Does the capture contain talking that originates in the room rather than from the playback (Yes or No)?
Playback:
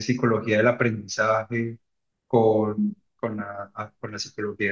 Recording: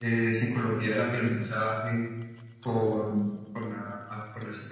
No